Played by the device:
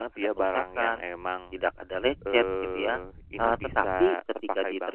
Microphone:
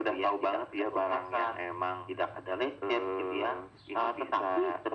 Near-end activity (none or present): none